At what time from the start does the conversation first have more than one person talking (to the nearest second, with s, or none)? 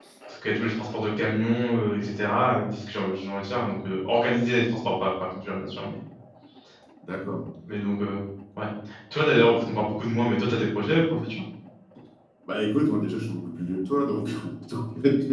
none